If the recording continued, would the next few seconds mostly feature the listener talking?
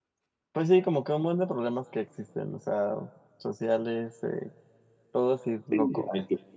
Yes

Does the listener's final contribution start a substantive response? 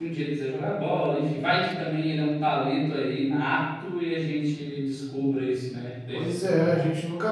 Yes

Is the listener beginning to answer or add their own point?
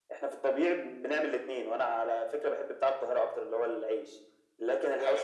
No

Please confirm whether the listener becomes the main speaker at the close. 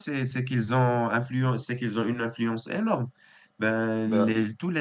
No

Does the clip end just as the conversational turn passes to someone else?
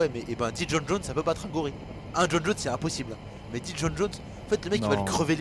No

